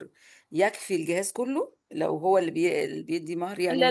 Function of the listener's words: taking over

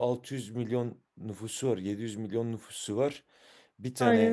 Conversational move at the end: listening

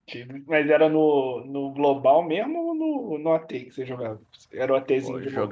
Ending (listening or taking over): taking over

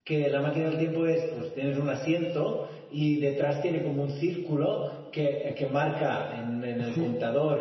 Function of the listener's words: taking over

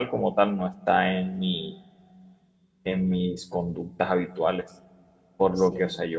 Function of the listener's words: listening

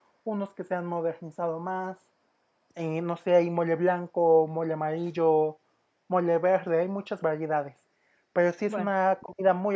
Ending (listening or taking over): listening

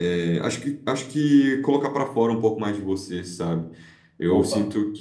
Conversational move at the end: listening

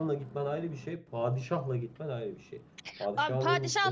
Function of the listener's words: taking over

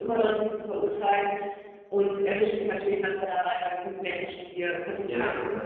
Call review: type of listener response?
listening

